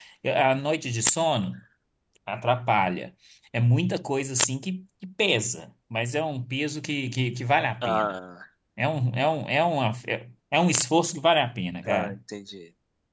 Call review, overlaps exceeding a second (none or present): none